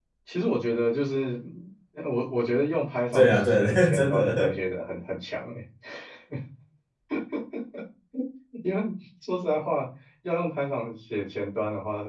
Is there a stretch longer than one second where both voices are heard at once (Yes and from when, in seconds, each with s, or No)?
Yes, from 3.1 s